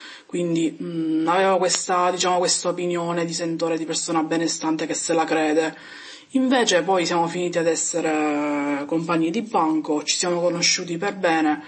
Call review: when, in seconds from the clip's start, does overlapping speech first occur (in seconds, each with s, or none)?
none